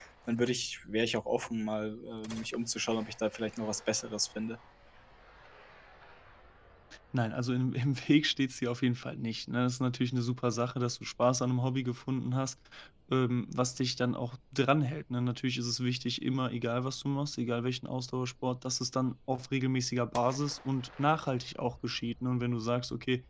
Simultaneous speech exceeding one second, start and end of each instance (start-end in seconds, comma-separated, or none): none